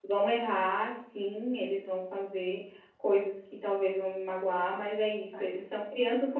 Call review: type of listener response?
listening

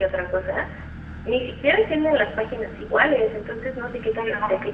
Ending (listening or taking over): listening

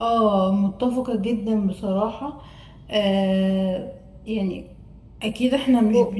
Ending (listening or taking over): listening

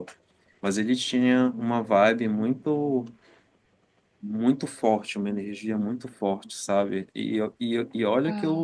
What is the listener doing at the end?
listening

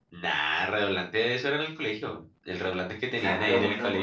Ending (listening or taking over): taking over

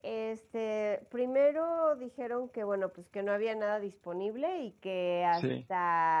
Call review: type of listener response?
listening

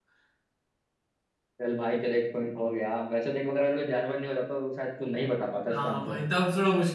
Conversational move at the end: taking over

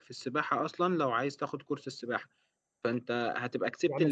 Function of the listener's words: taking over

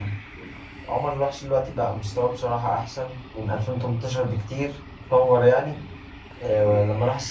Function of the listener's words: listening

